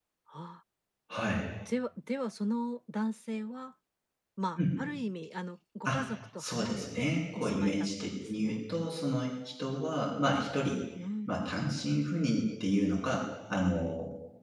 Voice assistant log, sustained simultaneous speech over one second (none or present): present